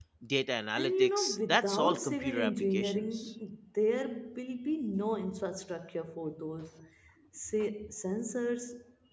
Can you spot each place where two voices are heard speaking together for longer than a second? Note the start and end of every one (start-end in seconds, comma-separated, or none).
0.8-3.3